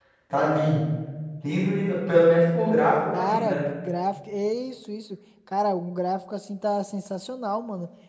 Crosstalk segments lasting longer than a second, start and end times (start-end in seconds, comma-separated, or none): none